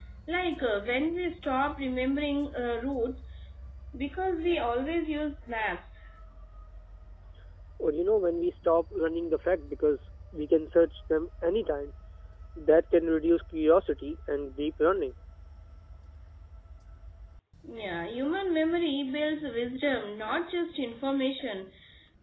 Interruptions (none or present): none